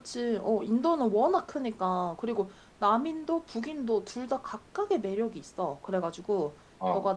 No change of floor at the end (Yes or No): Yes